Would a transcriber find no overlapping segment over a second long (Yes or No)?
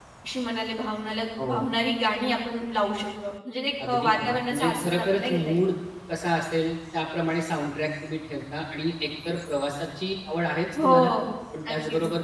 No